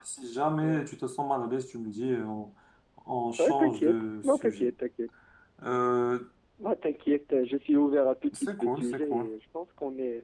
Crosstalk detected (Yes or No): Yes